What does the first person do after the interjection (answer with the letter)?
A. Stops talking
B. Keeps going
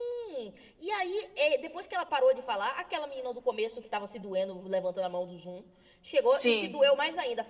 B